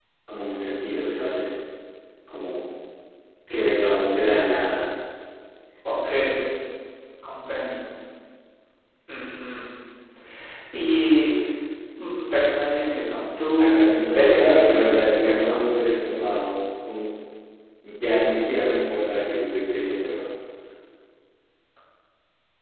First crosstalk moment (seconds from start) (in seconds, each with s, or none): 13.6 s